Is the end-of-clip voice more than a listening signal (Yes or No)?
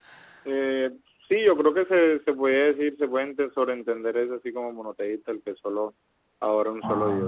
Yes